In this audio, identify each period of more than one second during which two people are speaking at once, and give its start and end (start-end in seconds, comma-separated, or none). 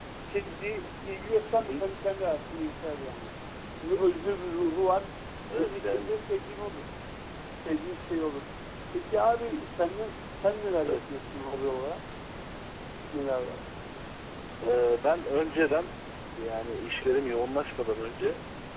none